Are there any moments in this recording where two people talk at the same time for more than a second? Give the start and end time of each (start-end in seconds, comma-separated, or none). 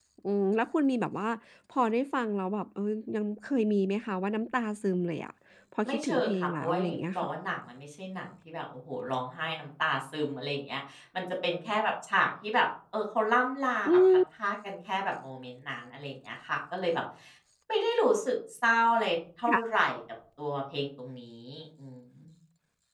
5.9-7.3